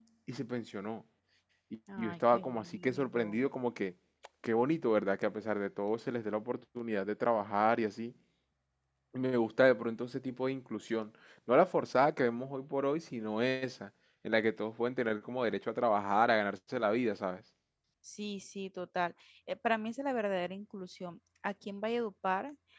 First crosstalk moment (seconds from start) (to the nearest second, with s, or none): 2 s